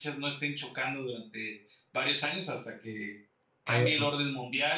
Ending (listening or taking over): listening